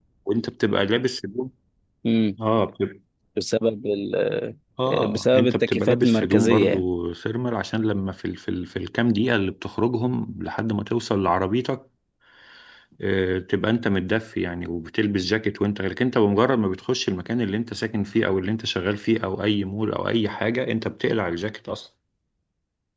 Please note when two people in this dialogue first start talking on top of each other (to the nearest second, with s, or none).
5 s